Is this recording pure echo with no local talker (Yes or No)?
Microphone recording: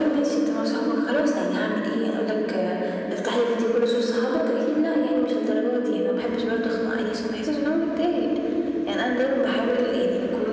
Yes